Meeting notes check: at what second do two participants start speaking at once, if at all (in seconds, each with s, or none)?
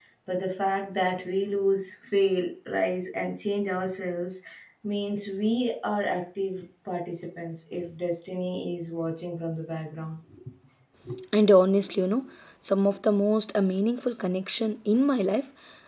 none